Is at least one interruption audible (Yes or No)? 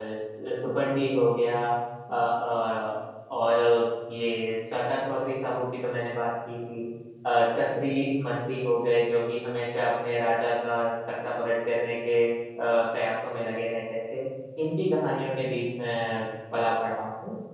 No